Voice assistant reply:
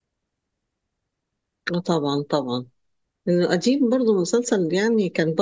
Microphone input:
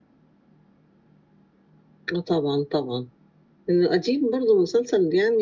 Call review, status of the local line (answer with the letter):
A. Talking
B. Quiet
B